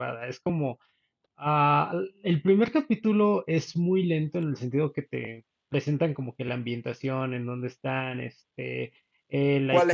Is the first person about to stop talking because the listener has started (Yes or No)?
Yes